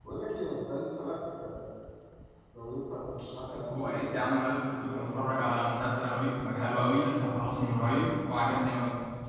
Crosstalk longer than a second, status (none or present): present